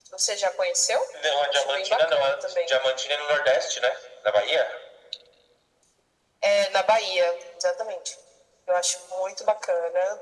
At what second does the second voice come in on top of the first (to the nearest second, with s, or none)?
1 s